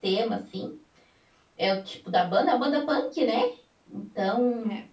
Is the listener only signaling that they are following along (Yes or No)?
Yes